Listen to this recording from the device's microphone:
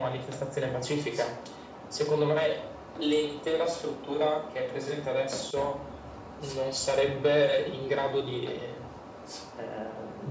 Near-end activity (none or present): none